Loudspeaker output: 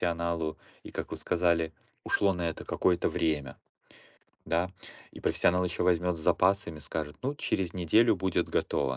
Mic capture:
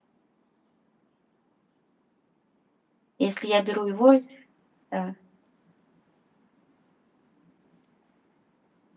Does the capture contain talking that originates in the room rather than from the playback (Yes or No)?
Yes